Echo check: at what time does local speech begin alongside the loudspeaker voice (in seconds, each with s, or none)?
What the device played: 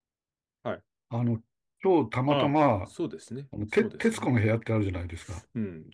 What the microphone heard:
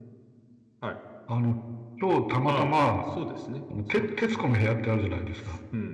none